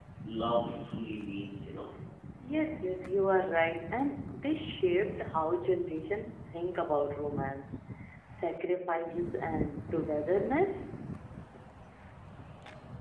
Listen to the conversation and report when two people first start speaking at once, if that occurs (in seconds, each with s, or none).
none